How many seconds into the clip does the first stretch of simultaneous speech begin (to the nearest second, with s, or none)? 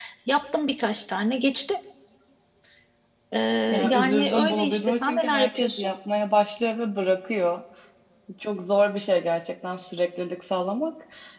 4 s